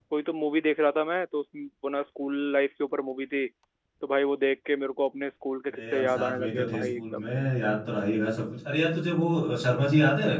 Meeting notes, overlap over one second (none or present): present